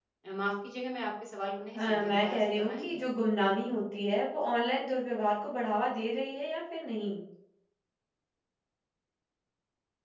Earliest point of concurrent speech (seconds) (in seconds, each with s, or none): 1.7 s